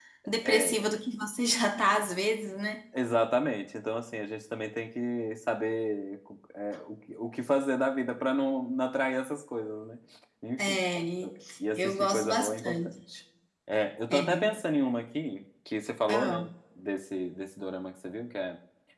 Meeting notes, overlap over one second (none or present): present